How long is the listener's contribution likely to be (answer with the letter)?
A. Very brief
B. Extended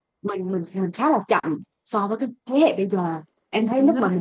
A